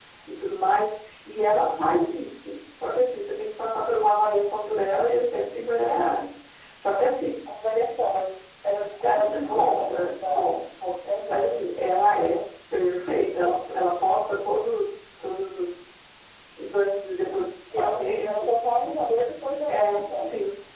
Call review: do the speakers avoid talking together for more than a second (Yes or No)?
No